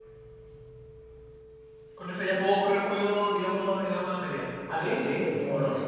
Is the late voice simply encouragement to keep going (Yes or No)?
No